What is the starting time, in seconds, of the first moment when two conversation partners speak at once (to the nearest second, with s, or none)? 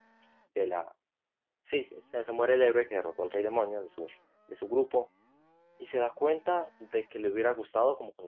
none